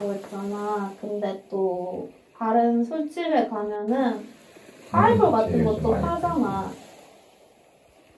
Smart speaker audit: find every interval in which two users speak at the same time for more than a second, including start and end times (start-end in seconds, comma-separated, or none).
4.9-6.6